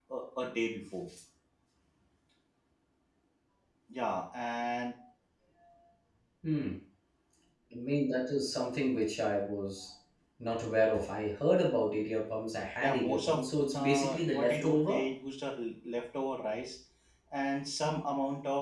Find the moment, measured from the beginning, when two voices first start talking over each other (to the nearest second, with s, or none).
13 s